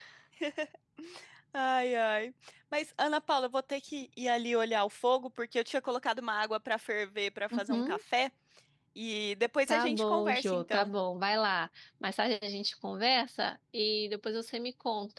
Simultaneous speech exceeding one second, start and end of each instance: 9.7-10.9

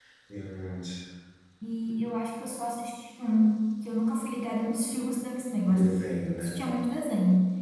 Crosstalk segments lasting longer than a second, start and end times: none

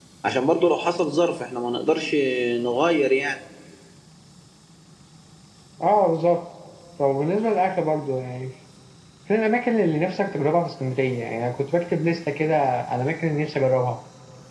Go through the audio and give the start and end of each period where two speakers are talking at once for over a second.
none

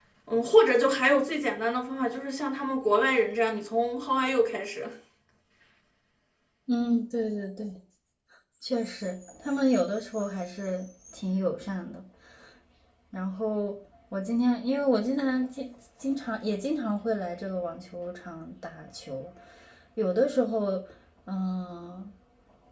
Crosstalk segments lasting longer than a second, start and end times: none

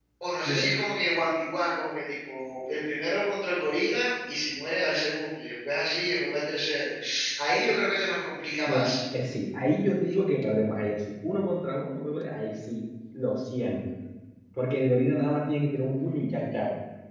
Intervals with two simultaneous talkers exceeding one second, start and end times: none

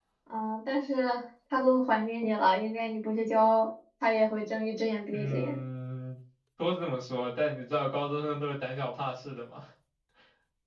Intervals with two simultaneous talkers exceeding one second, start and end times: none

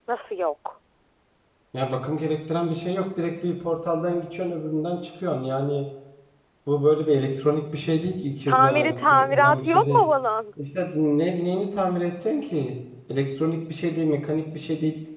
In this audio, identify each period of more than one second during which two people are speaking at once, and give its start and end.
8.5-10.0

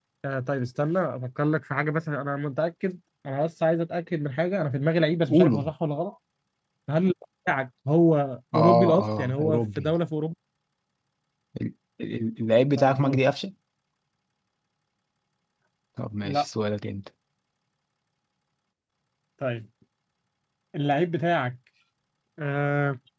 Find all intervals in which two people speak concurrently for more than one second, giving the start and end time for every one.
8.6-9.9

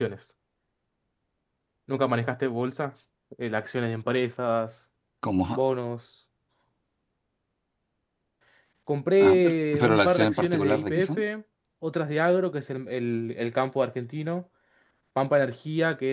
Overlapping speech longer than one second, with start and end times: 9.2-11.2

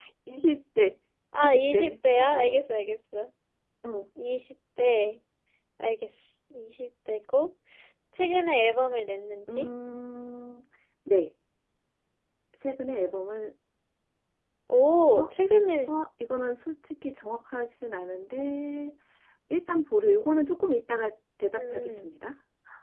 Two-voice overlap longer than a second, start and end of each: 1.4-2.6

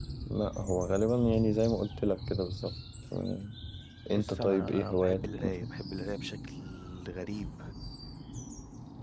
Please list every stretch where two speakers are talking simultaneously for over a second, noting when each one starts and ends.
4.1-5.7

